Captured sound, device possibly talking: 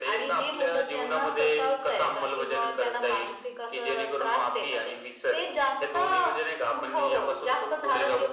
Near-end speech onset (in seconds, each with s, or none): none